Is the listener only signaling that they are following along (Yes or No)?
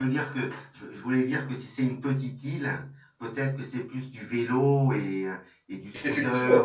No